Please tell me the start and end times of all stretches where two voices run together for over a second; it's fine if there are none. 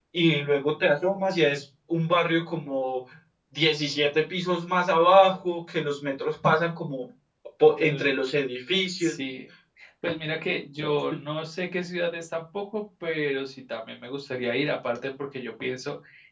none

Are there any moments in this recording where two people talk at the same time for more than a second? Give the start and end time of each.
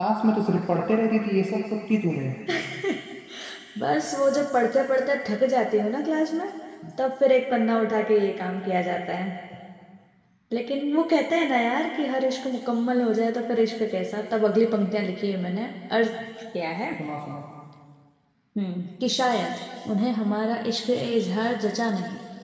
none

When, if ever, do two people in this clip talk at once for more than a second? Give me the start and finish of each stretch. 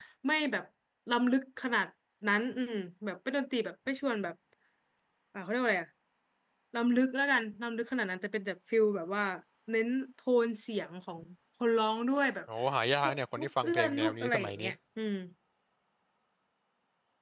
13.1-14.7

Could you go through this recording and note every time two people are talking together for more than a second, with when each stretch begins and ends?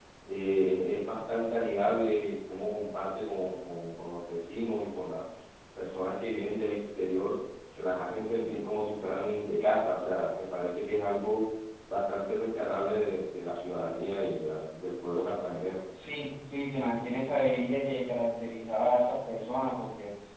none

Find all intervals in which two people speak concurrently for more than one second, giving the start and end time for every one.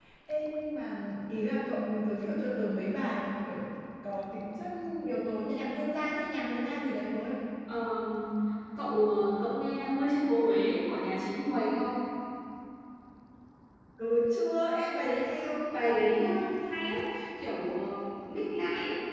none

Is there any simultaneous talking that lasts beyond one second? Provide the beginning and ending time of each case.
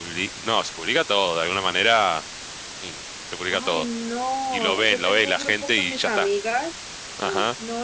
4.5-6.3

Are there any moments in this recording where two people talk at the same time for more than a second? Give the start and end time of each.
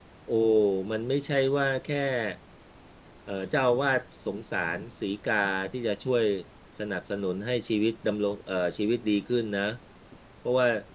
none

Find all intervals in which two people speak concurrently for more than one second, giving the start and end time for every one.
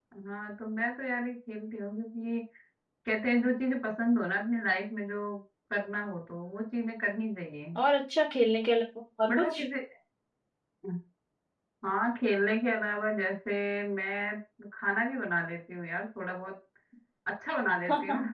none

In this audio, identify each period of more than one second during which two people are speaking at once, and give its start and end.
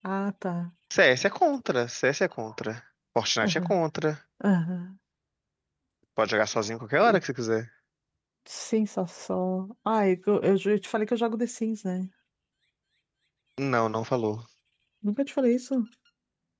none

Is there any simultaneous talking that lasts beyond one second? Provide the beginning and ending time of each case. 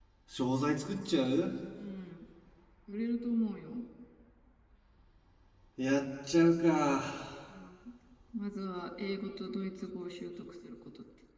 none

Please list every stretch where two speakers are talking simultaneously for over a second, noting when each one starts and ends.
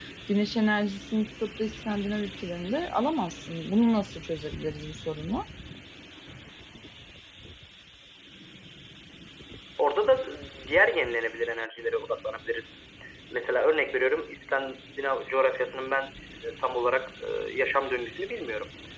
none

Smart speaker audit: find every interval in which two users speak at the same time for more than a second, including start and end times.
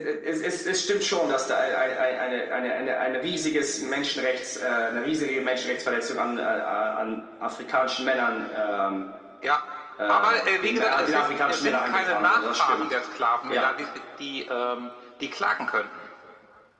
10.1-12.9

